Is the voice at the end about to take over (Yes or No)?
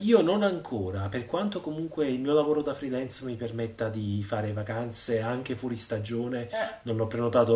No